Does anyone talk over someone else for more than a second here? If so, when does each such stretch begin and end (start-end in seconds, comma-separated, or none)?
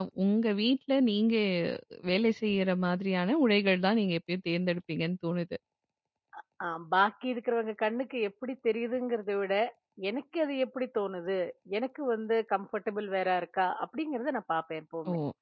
none